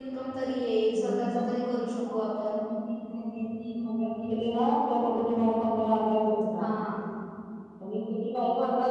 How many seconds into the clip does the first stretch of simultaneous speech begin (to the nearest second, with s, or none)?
1 s